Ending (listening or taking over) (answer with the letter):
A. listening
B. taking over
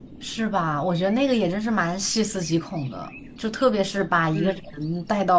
A